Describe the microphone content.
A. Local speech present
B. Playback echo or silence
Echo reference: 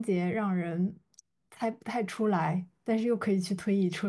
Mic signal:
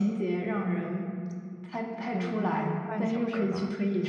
A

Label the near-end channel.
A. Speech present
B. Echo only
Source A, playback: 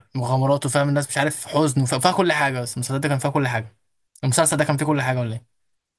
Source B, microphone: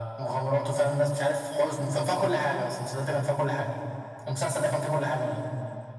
B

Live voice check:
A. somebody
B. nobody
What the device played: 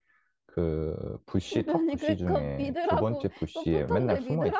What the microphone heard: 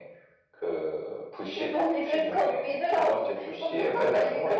B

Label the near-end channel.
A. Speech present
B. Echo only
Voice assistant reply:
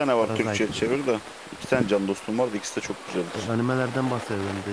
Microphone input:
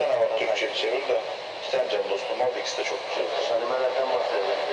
B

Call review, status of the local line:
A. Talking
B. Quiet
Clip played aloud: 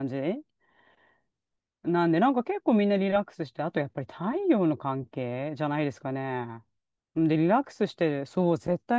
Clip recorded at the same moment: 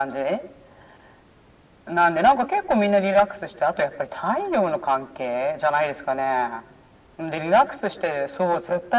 B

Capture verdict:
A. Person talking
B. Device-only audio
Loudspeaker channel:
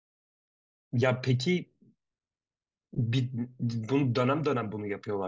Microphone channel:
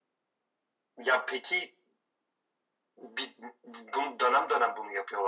B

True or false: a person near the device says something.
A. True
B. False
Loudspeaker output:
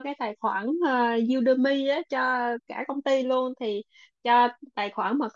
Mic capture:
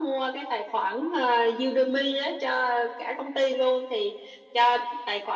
B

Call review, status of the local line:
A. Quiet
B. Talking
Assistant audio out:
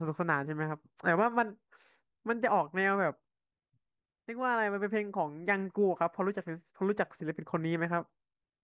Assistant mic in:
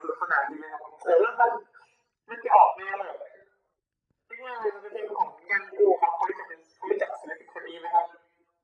A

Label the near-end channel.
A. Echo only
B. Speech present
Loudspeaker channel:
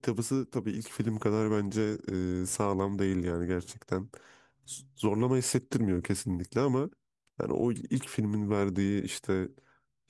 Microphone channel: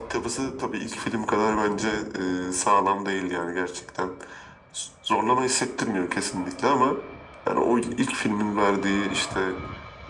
A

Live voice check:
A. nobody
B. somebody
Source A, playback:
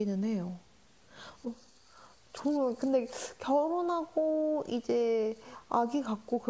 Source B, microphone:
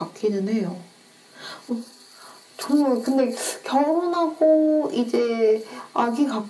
A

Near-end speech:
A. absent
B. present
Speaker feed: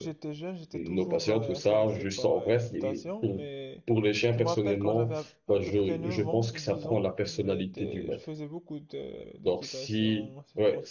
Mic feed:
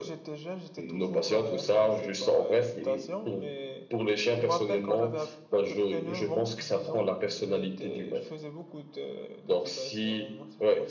A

